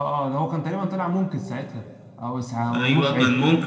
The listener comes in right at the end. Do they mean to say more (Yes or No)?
Yes